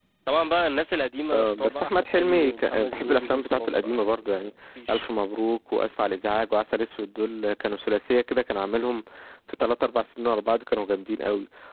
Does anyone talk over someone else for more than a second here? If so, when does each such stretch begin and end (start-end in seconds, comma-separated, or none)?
1.3-4.5